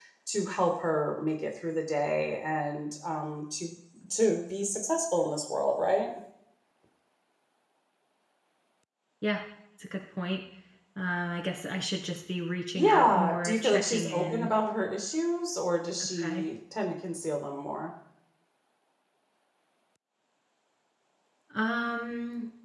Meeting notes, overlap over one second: present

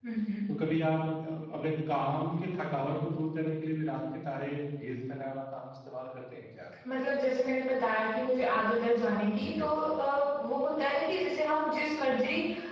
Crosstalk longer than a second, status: none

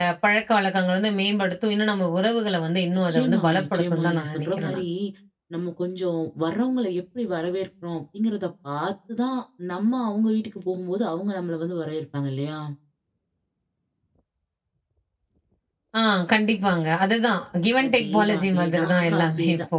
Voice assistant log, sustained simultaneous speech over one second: present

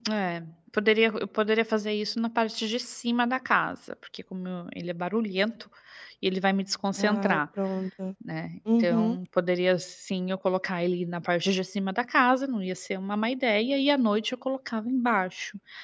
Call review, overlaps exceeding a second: none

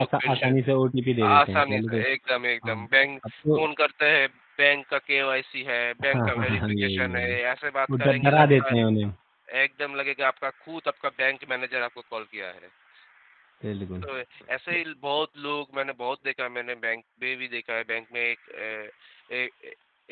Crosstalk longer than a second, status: present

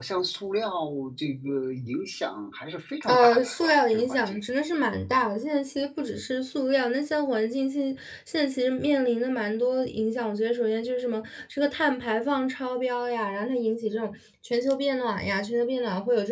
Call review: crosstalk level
present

